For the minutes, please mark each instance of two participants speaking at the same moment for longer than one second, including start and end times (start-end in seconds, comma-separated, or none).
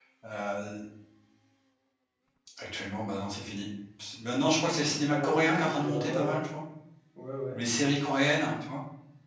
5.1-6.4